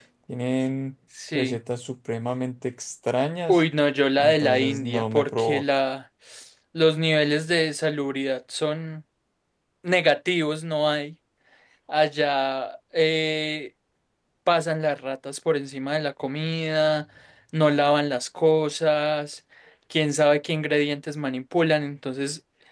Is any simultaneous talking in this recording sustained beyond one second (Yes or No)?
Yes